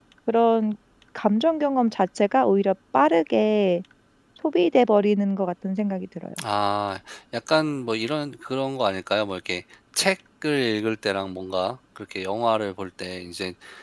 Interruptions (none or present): none